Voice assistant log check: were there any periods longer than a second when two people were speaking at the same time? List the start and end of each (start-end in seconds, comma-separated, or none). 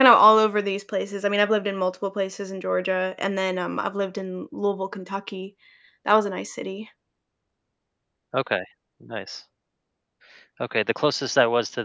none